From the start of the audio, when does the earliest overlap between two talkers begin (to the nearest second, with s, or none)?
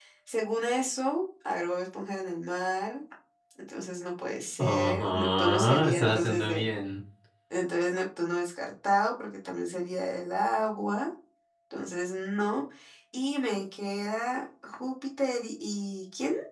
5 s